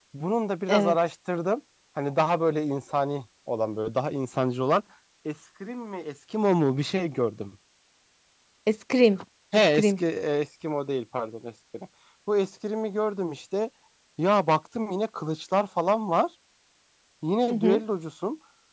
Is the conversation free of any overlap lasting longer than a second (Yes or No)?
Yes